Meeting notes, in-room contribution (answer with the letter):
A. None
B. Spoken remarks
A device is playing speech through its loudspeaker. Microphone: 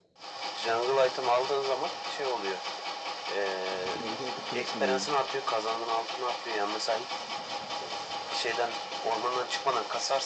B